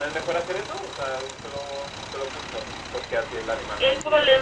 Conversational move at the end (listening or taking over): taking over